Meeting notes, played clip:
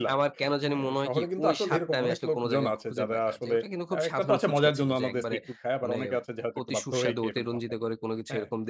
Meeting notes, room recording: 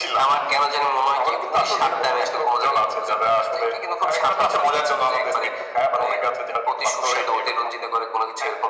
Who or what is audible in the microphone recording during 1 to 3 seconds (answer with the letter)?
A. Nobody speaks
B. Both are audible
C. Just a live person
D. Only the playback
D